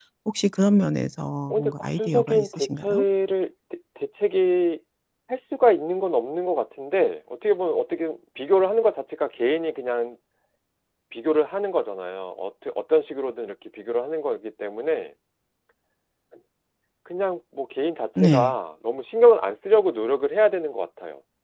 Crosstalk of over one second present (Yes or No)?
Yes